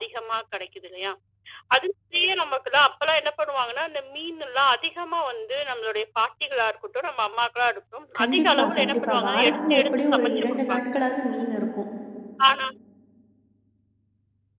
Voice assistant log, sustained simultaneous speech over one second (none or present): present